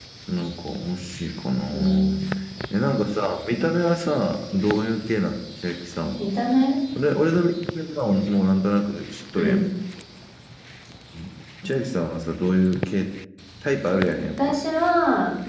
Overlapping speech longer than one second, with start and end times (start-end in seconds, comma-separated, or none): none